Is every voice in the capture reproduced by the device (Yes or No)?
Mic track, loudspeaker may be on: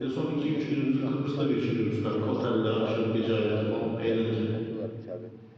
No